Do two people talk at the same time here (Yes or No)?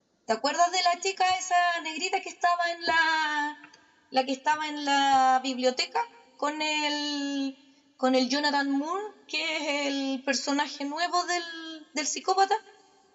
No